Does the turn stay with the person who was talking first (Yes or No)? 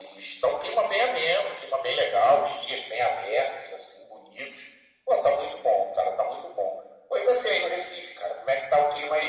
No